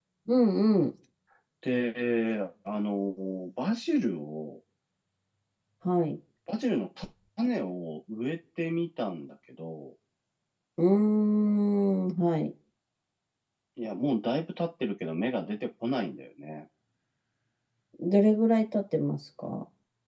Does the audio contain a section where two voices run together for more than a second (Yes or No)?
No